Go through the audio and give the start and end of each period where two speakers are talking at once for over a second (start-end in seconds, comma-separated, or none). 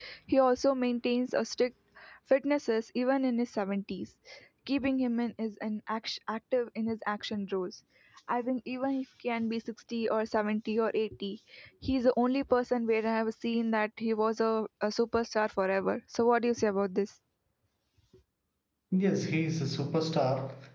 none